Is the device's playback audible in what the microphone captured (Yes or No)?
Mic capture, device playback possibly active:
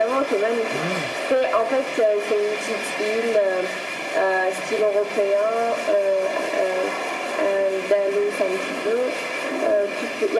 Yes